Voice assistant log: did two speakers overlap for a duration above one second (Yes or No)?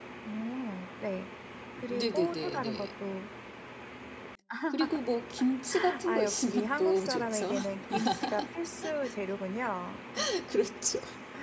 Yes